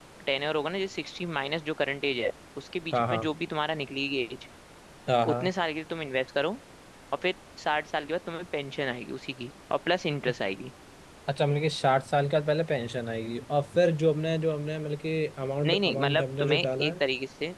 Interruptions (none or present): present